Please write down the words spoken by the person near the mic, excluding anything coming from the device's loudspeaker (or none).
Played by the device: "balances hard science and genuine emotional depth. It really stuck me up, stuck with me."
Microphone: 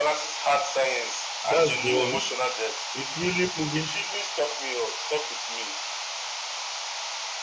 That's the one. It's really moving